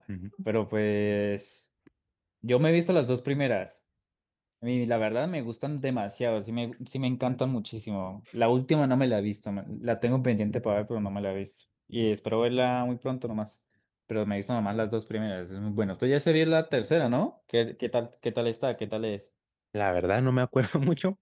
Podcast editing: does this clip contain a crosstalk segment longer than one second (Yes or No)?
No